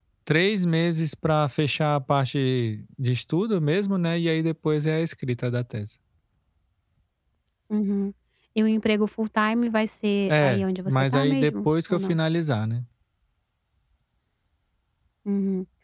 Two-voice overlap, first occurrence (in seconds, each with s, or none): 10.3 s